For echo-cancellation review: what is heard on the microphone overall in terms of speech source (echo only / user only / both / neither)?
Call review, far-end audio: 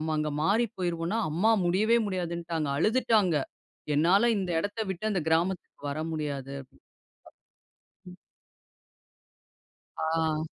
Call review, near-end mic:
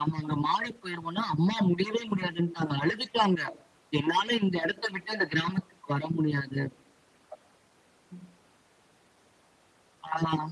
echo only